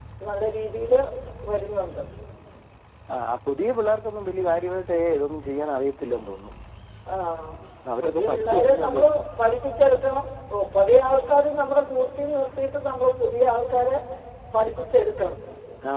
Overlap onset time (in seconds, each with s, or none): 8.0 s